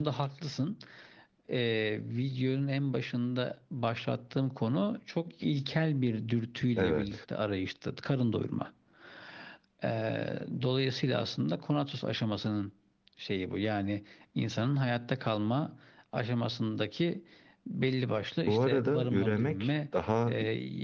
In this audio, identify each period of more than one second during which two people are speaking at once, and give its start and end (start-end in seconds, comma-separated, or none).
18.5-19.7